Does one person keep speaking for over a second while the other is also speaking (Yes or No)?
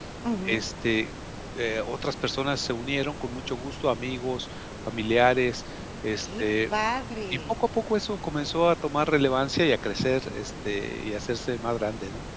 No